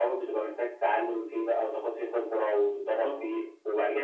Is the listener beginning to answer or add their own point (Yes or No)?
No